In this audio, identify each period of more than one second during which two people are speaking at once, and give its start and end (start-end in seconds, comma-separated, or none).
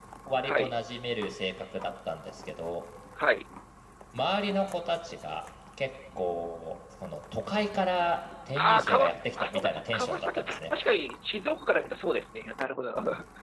8.6-10.7